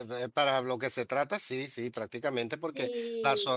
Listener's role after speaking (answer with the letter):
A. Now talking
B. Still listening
B